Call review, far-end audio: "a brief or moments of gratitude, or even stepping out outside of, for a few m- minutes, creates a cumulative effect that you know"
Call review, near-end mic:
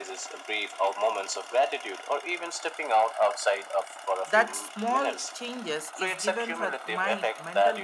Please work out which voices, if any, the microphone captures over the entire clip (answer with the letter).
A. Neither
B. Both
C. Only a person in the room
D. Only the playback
B